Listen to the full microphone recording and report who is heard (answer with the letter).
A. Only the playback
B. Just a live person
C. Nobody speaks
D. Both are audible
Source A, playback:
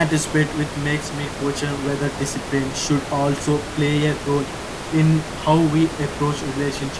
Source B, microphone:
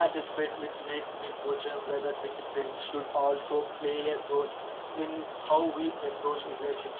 A